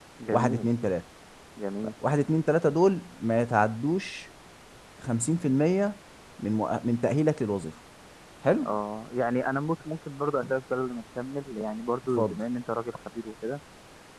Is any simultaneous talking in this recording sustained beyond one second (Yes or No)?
No